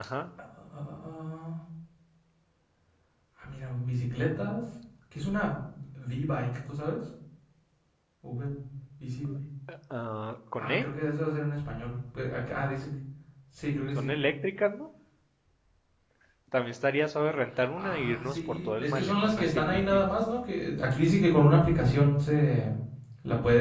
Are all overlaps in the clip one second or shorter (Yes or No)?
No